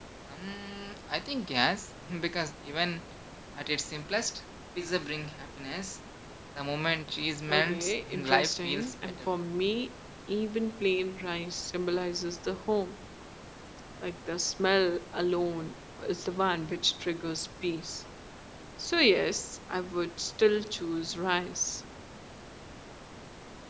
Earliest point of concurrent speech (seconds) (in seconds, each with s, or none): 7.5 s